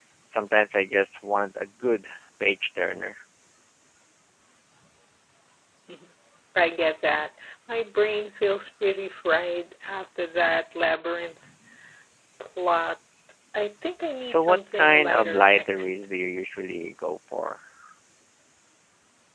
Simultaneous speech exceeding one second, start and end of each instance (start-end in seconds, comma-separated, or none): 14.2-15.9